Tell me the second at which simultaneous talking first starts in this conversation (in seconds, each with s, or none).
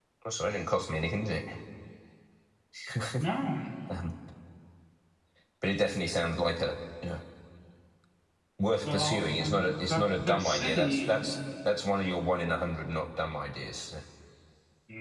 8.8 s